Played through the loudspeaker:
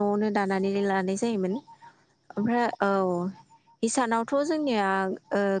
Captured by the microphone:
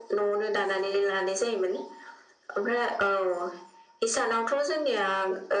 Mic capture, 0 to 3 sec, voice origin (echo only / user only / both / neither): echo only